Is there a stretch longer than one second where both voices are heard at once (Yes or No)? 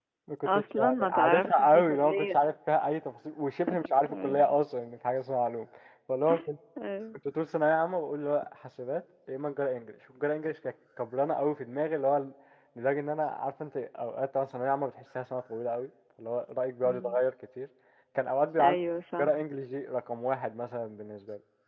Yes